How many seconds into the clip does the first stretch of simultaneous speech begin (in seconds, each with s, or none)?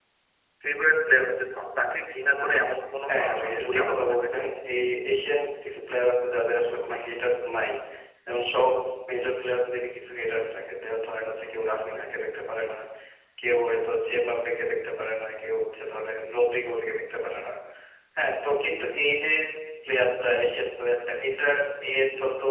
3.1 s